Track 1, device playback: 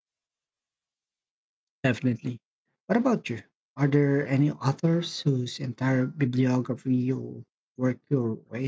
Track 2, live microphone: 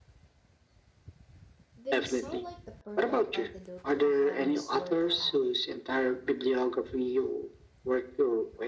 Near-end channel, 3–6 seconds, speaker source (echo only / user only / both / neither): both